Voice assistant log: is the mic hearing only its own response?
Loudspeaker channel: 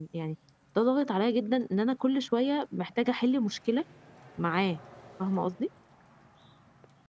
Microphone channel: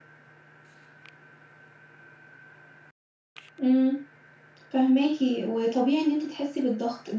No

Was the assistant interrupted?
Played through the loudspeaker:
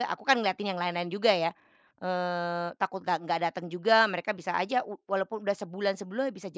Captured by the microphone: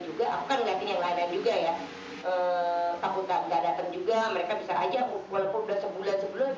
No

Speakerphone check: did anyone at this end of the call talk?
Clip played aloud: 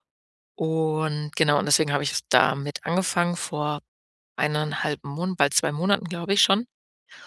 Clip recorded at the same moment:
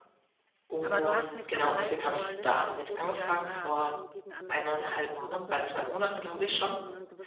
Yes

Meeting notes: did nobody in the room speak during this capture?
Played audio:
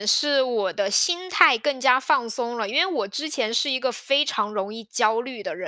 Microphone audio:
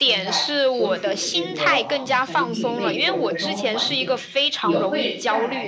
No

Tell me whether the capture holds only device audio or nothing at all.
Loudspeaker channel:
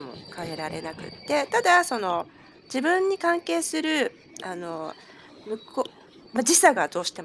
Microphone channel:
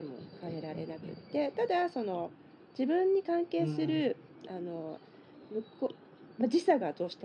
No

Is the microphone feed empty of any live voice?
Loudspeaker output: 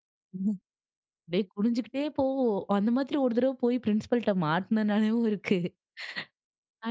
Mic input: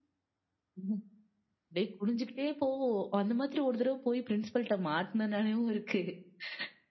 Yes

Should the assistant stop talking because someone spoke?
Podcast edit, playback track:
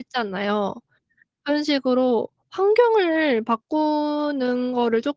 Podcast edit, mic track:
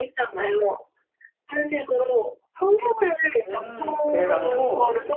Yes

